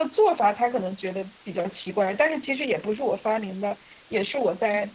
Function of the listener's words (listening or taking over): listening